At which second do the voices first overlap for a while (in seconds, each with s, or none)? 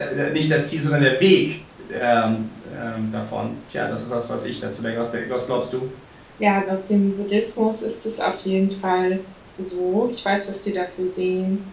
none